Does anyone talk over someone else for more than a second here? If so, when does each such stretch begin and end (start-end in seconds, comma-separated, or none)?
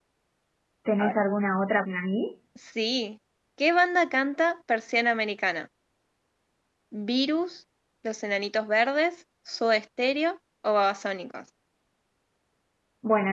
none